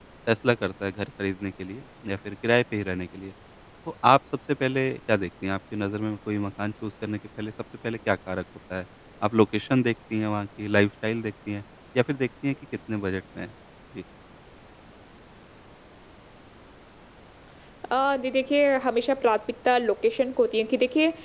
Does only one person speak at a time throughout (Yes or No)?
Yes